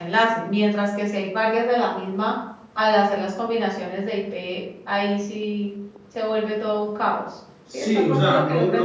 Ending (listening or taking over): taking over